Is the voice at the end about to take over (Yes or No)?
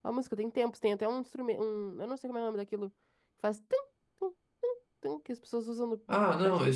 Yes